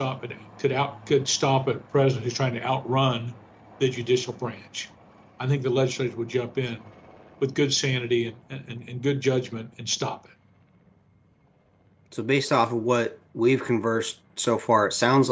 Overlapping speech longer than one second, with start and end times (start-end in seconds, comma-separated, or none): none